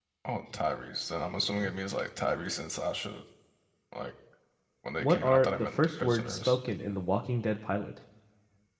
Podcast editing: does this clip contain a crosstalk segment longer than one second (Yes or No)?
Yes